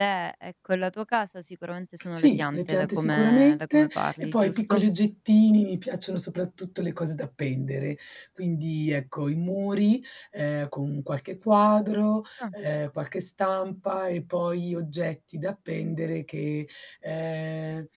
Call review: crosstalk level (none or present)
present